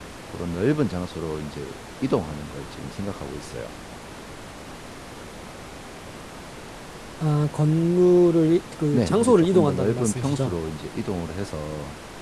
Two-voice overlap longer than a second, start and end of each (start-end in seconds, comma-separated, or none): 8.9-10.6